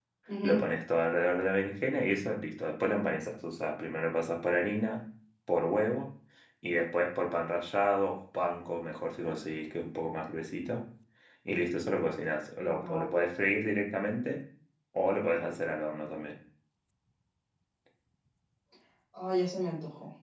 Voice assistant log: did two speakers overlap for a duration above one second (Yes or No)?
No